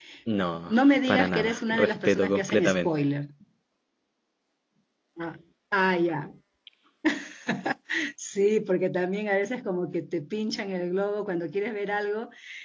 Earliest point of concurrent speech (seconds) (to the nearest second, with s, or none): 1 s